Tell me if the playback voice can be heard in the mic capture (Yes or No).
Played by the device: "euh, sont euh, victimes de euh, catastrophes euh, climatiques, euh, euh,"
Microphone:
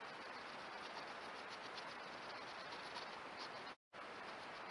No